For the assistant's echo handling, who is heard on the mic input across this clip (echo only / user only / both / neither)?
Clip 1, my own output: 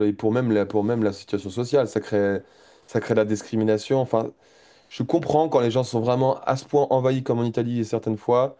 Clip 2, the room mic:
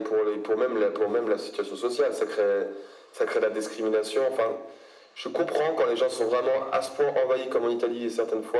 echo only